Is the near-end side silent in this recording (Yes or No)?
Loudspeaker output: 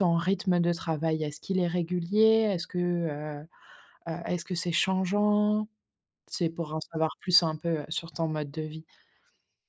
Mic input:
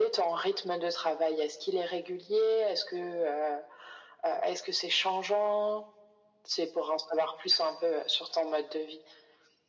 Yes